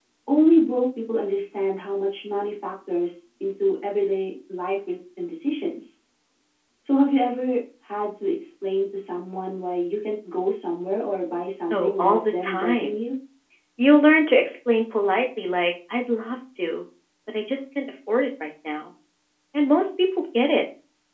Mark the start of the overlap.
12 s

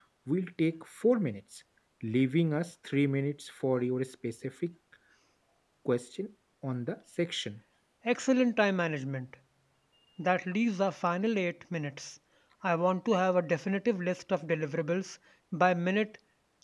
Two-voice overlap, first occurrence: none

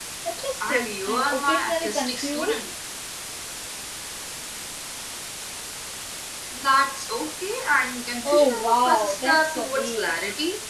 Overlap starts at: 1 s

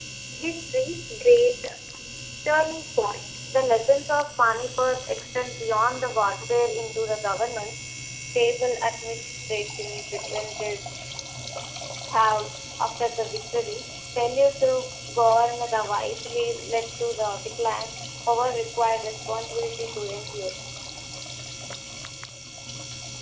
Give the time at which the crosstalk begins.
none

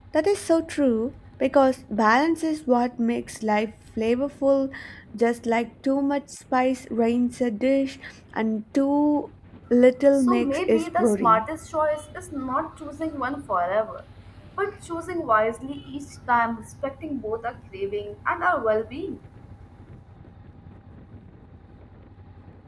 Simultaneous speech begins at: 10 s

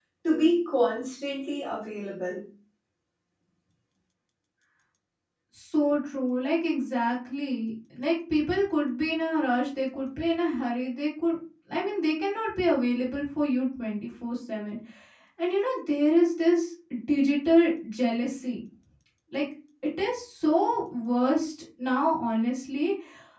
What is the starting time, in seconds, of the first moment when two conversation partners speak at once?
none

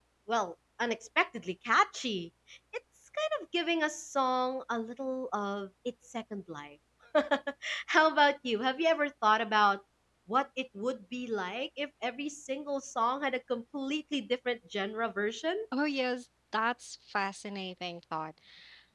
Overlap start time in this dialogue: none

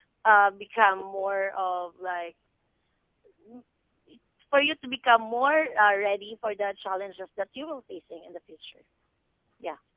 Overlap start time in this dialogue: none

